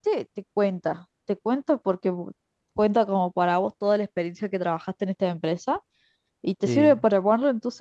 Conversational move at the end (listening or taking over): listening